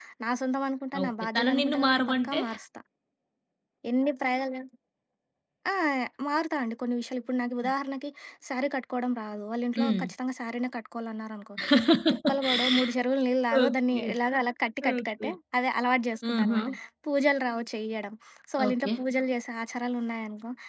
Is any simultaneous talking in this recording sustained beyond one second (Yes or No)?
Yes